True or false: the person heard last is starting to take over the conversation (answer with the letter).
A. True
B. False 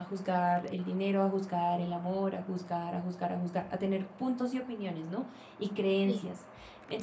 B